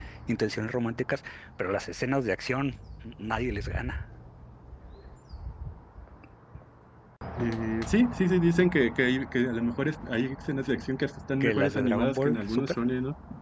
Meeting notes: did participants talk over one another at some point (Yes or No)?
Yes